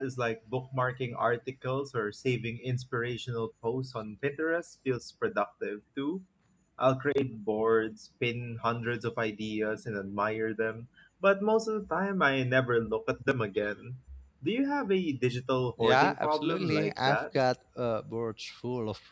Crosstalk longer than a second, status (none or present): present